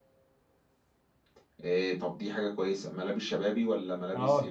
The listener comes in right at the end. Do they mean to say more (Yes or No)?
Yes